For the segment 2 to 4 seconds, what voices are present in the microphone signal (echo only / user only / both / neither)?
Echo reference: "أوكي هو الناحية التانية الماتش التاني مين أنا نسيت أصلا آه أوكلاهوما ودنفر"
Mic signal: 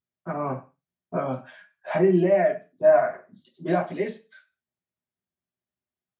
user only